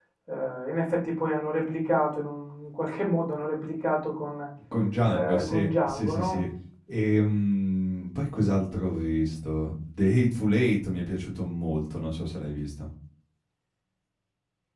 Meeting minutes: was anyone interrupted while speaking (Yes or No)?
Yes